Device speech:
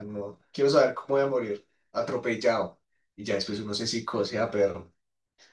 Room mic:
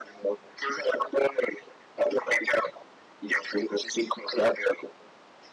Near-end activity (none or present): none